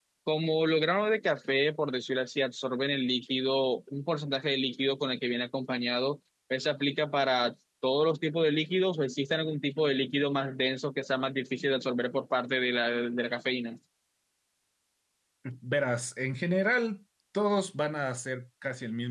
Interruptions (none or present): none